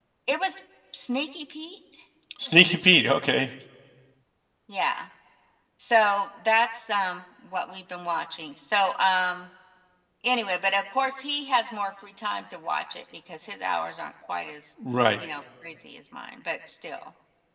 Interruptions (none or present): none